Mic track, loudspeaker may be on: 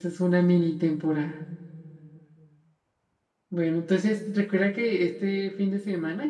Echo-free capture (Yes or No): Yes